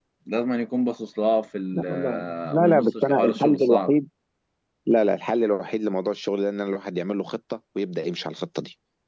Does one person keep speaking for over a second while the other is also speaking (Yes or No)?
Yes